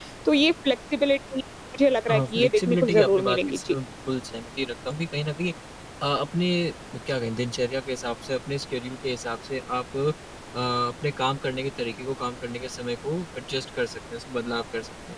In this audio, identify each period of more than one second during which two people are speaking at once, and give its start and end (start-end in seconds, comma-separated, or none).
2.1-3.6